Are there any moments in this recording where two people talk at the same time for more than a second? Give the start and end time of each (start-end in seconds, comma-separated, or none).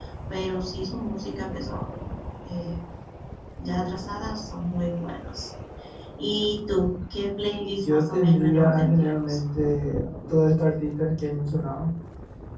7.8-9.4